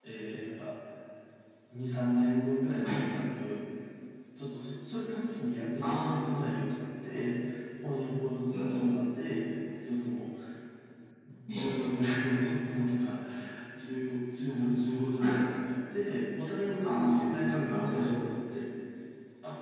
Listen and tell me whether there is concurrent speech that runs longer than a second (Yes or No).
Yes